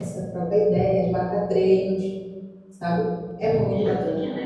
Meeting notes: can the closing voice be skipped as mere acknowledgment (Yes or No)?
No